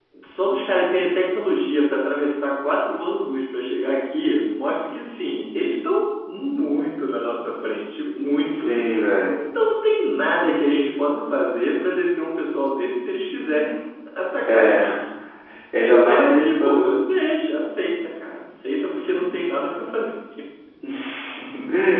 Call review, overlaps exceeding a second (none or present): present